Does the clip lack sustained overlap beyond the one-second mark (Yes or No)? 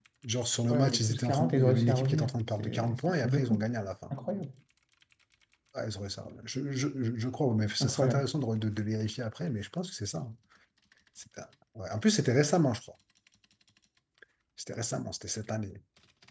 No